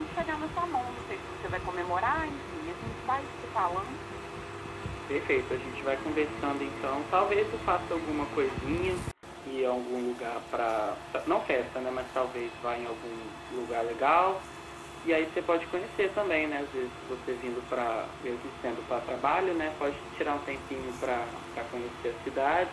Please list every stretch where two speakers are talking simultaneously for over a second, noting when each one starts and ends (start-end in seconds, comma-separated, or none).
none